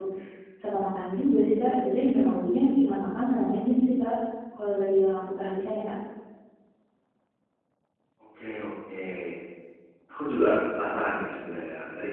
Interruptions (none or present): none